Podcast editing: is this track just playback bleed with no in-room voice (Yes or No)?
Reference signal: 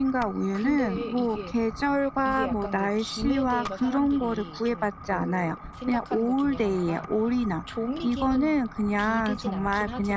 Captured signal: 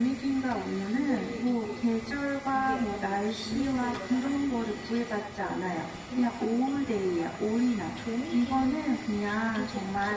Yes